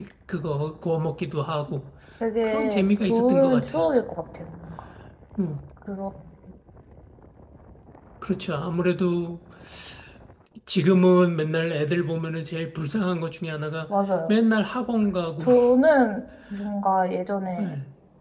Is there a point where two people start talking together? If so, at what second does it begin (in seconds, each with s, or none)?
2.4 s